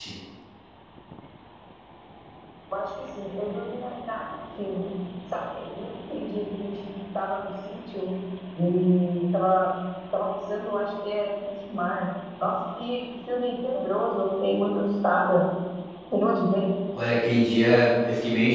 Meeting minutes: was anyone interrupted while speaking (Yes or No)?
No